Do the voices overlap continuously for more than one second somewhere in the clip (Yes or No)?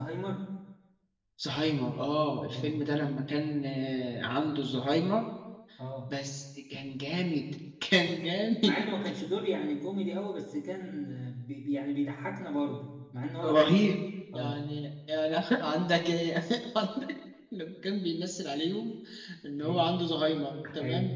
No